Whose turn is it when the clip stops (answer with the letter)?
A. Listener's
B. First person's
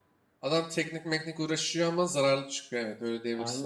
A